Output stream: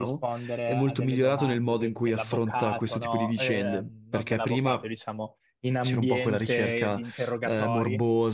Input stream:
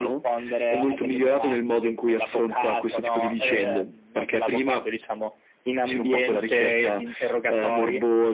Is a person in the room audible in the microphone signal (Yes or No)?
No